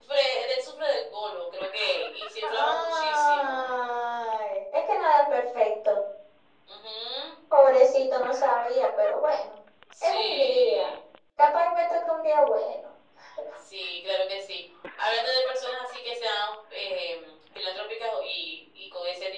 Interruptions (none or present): present